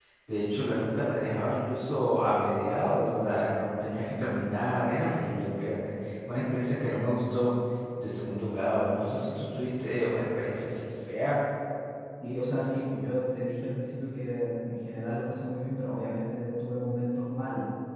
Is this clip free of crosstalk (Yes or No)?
Yes